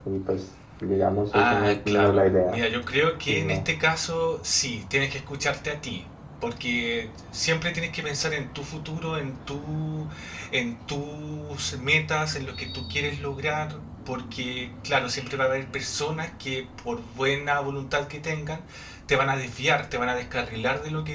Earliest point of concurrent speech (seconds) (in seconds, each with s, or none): 1.3 s